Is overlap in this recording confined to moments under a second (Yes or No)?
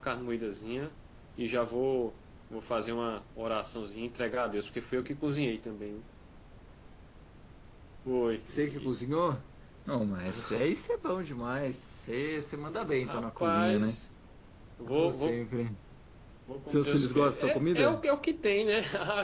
No